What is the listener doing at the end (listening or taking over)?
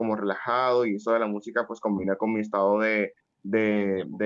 listening